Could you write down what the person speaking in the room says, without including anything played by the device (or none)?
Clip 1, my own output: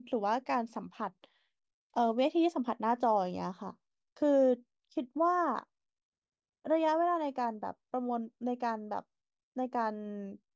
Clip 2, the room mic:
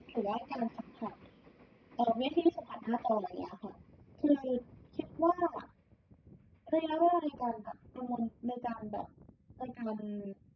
none